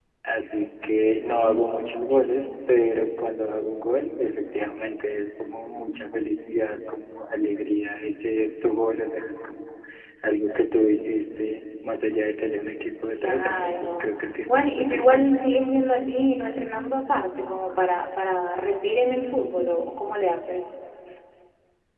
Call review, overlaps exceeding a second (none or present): present